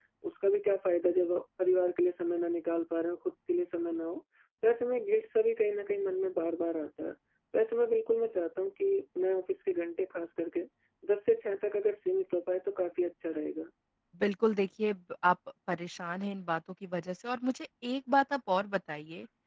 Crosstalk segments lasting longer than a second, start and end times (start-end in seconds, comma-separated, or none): none